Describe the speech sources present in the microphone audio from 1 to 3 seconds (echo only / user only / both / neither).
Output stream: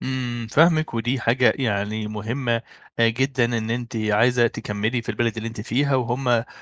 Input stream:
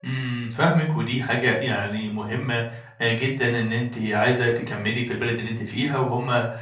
echo only